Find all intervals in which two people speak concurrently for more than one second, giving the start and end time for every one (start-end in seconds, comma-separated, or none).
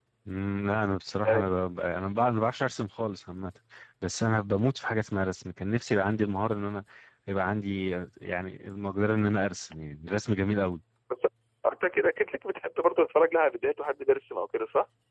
none